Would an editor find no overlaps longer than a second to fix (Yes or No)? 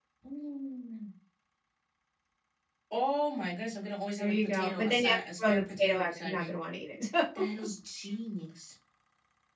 No